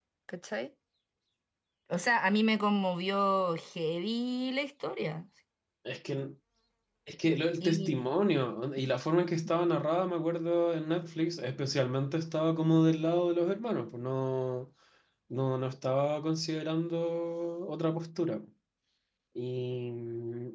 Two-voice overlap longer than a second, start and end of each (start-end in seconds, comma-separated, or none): none